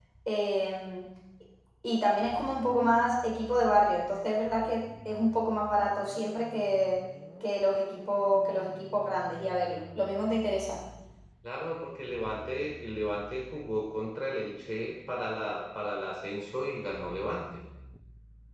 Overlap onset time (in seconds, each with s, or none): none